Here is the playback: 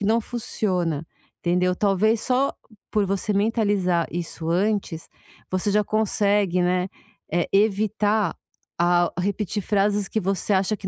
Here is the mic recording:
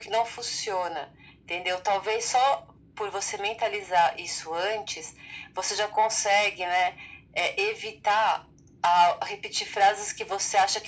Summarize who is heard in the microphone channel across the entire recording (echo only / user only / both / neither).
echo only